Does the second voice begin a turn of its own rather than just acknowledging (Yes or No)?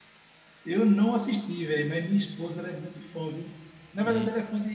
No